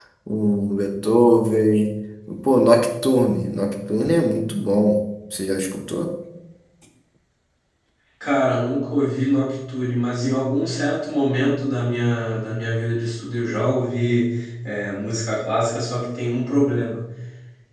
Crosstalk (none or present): none